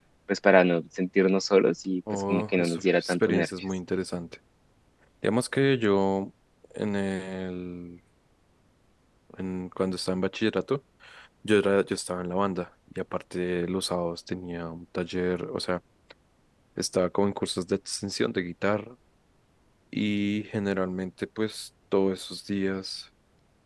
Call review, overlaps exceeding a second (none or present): present